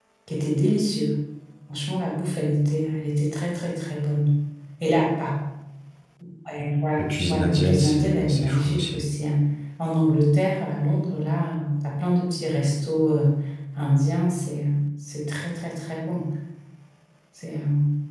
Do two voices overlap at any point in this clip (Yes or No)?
Yes